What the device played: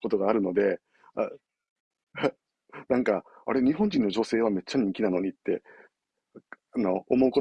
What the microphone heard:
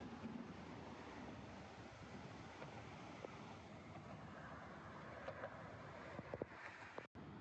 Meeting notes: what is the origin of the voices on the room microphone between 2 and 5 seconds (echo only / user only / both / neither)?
neither